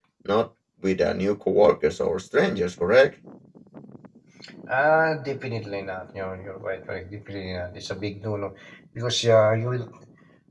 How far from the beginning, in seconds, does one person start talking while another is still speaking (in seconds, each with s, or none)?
none